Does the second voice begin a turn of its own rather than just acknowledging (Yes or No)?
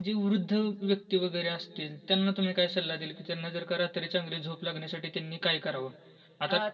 Yes